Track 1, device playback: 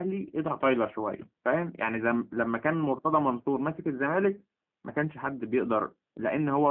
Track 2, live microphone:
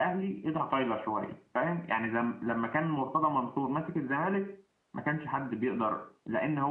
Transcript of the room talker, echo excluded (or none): none